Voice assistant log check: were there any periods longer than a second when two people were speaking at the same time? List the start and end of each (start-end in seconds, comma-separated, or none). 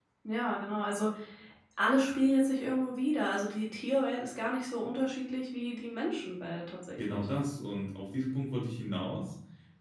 none